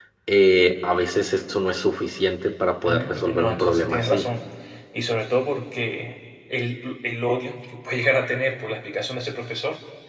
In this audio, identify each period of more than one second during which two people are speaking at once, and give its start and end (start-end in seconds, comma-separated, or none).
2.9-4.3